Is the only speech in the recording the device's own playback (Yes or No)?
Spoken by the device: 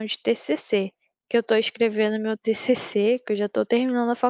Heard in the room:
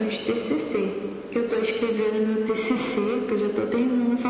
Yes